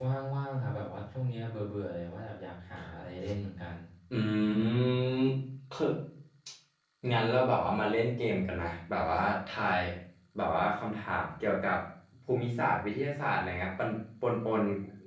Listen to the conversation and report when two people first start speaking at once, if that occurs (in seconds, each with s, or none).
none